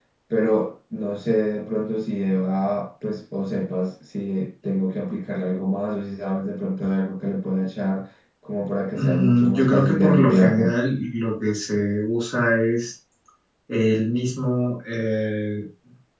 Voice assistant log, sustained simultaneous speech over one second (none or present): present